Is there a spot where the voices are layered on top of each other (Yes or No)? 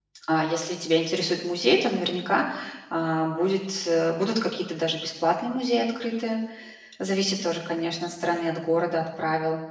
No